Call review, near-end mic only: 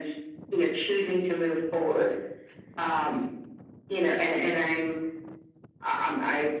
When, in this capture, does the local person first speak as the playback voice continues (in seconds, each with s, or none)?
none